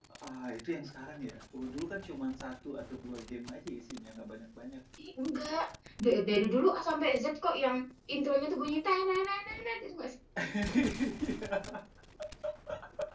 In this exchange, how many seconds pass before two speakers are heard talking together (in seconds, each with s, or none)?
none